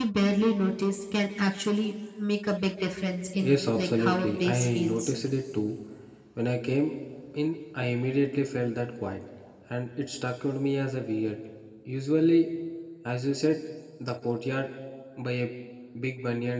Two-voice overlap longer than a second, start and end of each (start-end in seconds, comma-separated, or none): 3.4-5.1